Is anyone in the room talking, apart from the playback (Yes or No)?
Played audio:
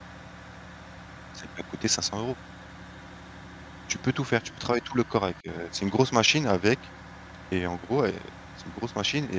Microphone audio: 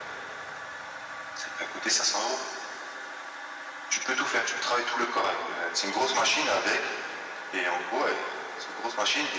No